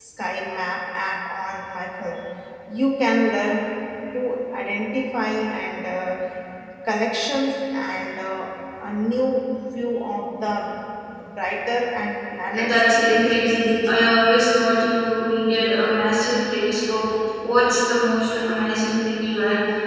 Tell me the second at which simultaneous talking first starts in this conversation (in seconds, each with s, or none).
12.6 s